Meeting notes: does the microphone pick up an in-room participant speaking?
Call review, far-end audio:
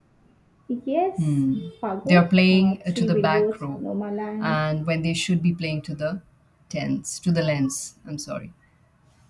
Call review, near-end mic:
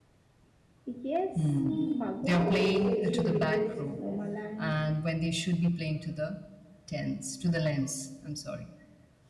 Yes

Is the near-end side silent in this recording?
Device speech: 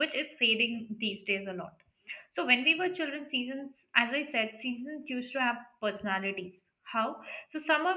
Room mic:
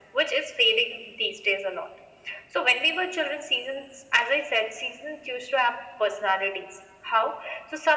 Yes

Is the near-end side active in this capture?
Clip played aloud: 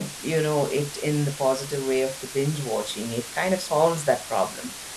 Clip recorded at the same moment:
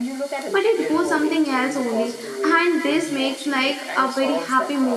Yes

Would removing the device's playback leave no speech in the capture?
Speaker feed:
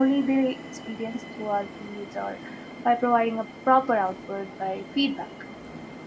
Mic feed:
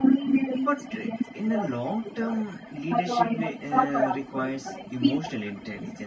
No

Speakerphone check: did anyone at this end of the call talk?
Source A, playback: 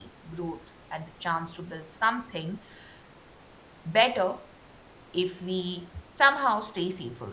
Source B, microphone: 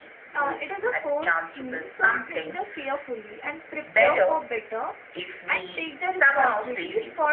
Yes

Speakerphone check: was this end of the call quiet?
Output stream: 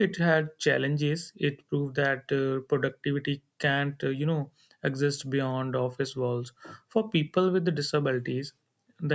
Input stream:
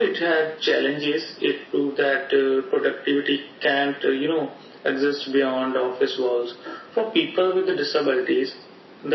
Yes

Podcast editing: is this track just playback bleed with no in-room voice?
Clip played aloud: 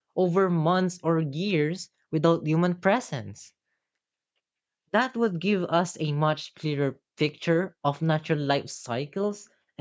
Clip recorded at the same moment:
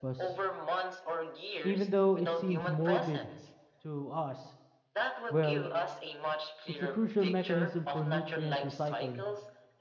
No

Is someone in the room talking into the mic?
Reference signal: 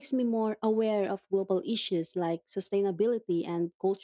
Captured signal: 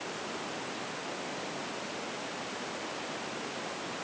No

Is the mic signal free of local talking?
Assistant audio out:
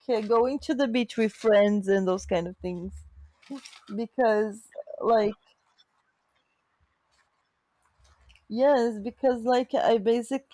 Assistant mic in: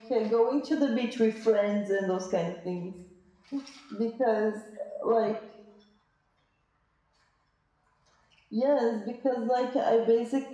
Yes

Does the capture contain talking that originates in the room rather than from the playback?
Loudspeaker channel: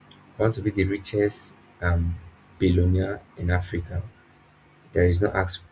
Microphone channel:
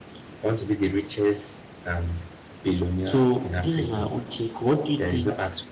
Yes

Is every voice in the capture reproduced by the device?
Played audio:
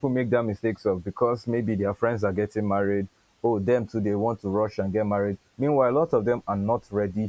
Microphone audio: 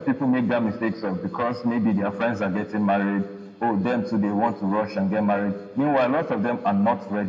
Yes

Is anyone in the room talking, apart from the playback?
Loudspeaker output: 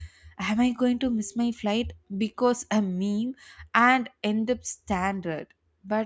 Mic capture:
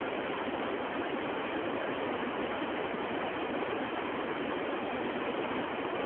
No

